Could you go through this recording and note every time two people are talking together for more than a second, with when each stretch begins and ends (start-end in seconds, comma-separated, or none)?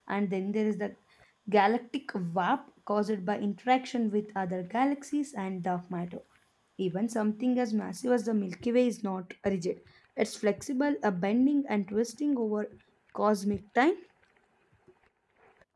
none